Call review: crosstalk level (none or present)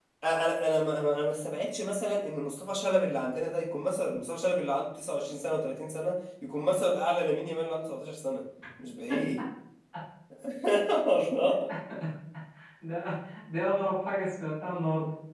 none